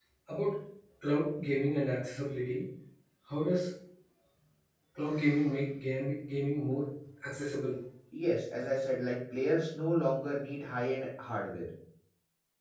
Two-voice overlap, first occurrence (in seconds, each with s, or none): none